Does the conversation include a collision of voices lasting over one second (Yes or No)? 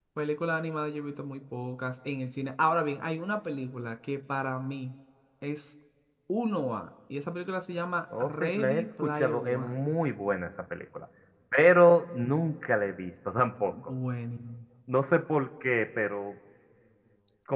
Yes